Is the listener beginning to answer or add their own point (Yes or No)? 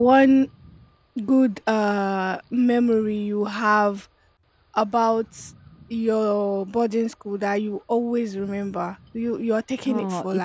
Yes